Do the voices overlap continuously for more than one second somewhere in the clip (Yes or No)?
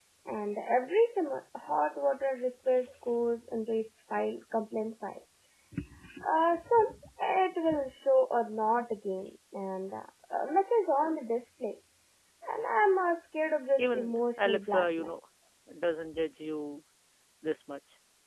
Yes